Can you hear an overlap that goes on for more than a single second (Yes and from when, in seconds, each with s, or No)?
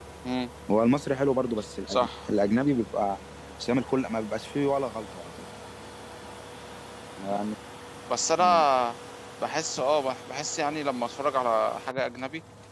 No